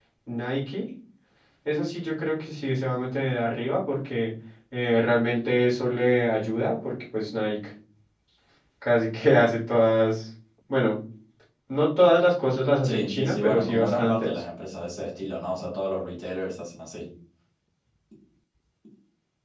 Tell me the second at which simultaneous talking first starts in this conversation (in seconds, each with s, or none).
12.8 s